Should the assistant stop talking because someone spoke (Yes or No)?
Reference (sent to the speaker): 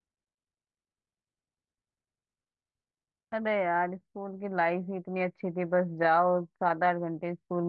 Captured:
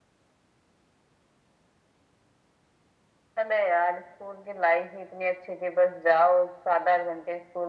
No